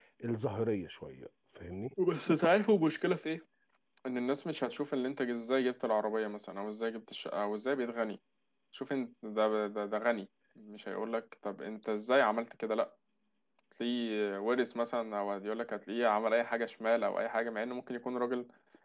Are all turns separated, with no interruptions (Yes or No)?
Yes